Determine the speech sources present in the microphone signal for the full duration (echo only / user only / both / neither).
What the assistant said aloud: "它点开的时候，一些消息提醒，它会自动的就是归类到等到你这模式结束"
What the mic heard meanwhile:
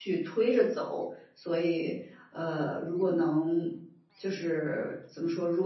user only